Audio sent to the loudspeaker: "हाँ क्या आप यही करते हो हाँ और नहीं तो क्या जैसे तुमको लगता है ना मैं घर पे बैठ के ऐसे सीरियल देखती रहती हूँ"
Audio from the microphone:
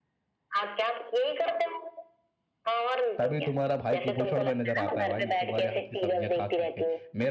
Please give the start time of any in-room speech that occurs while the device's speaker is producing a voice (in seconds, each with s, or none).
3.2 s